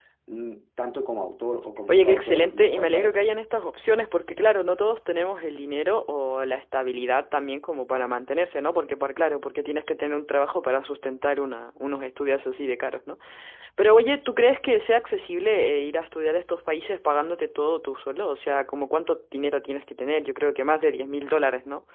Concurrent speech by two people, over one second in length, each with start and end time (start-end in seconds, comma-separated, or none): 1.9-3.3